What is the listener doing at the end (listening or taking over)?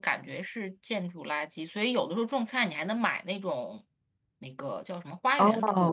listening